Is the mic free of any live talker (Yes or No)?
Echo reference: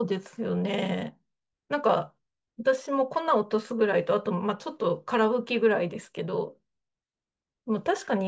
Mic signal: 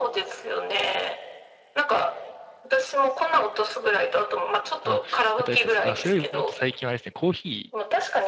No